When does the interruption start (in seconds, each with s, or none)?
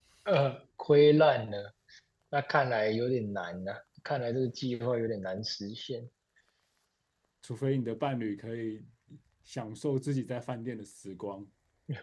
none